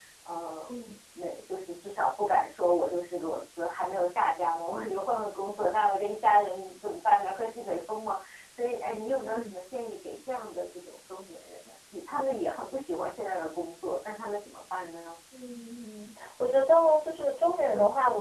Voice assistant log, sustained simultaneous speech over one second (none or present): none